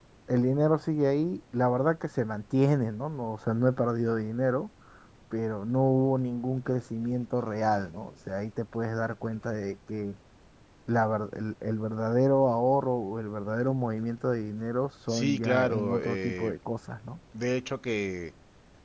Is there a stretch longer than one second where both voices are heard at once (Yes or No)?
Yes